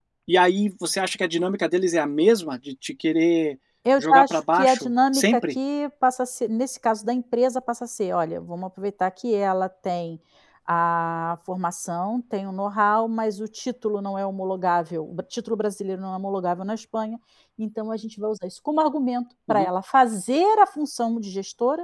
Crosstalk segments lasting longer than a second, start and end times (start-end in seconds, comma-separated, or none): 4.0-5.5